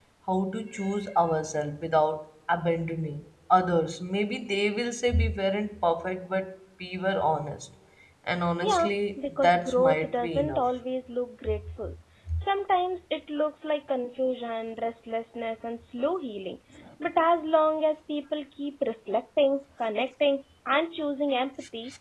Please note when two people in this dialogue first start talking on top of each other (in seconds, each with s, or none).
8.6 s